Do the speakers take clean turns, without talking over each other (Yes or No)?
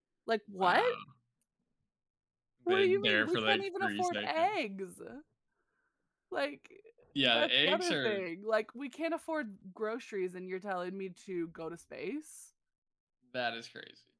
No